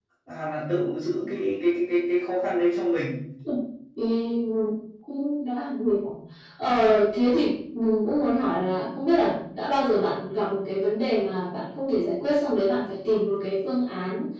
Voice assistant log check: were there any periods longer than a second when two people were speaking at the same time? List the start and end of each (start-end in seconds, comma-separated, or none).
none